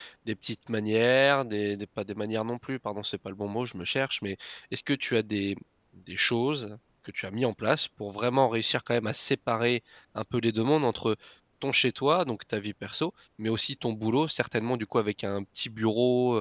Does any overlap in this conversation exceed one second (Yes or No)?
No